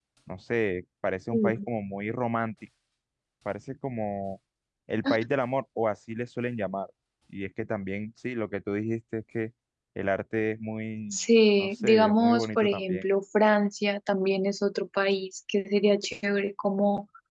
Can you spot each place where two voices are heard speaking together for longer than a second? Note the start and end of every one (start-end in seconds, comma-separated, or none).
11.6-13.0